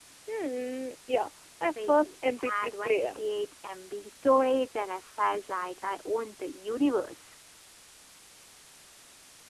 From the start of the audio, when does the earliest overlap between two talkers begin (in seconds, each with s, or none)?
1.8 s